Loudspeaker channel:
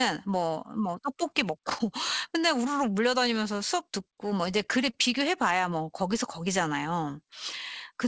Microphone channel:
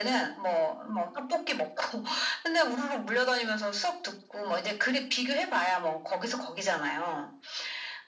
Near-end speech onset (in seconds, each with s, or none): none